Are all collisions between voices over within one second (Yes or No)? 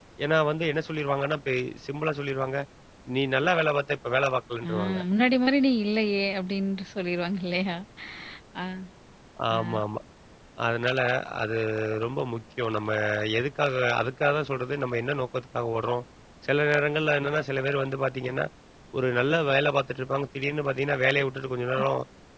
Yes